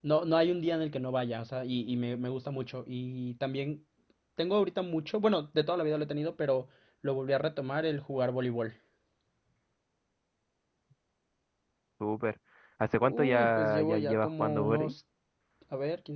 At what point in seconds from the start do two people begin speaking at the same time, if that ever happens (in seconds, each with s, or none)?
13.0 s